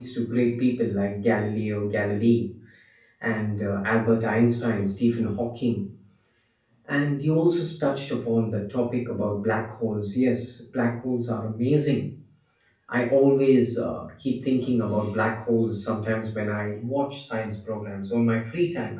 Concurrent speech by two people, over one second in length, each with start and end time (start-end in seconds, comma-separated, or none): none